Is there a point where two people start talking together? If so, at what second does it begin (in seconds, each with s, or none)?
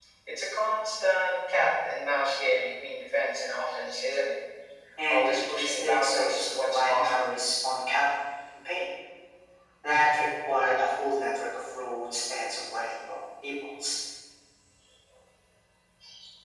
5.1 s